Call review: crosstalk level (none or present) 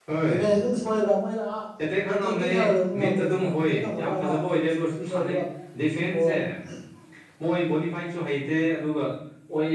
present